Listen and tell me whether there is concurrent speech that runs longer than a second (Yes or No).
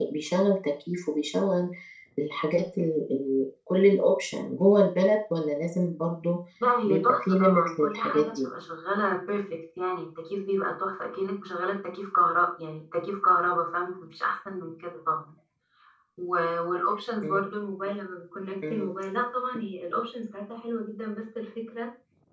Yes